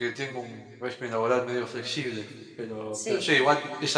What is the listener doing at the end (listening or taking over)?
listening